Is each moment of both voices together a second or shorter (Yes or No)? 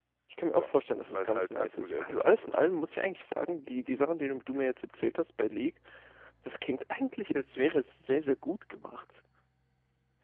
No